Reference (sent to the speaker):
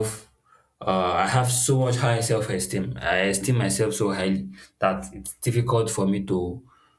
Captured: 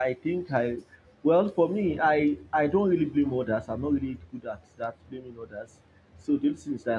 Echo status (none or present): none